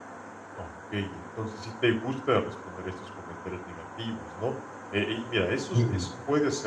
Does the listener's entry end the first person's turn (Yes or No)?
No